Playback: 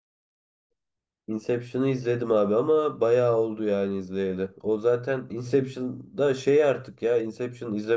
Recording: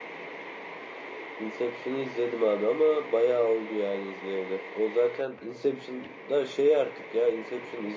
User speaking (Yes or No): No